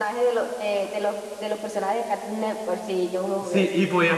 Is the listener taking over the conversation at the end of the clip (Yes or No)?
Yes